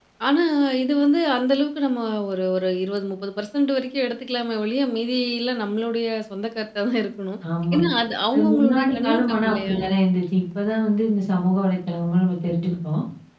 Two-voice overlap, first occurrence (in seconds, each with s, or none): 8.3 s